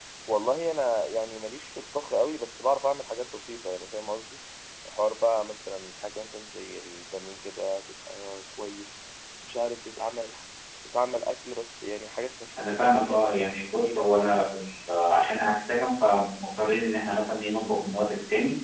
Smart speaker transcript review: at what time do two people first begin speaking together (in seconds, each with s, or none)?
12.6 s